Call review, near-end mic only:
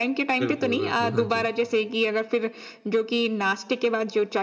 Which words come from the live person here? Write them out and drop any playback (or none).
बिल्कुल, बिल्कुल। हाँ जी।